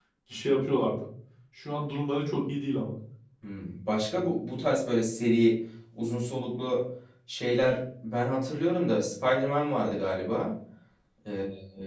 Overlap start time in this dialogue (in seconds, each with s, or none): none